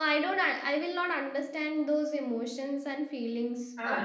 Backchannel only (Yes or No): No